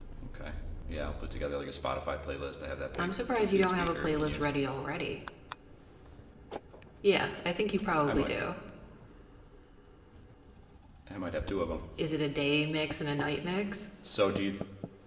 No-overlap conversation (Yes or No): No